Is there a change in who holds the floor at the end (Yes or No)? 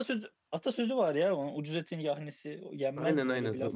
Yes